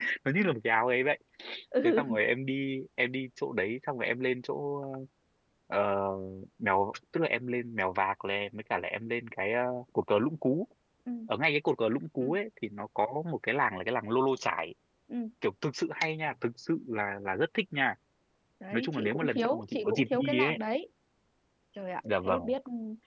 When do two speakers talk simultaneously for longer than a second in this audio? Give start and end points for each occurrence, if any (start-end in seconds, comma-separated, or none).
18.7-20.6